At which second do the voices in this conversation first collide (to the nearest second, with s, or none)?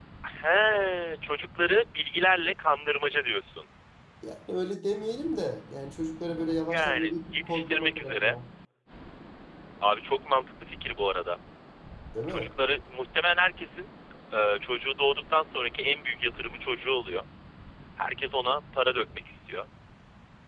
7 s